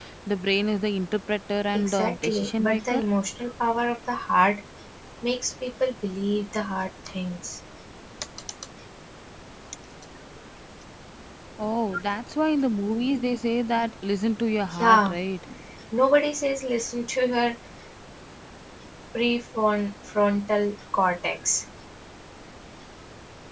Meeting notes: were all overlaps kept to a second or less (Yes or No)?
No